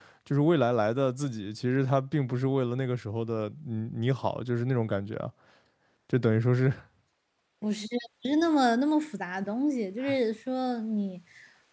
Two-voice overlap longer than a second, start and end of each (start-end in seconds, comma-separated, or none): none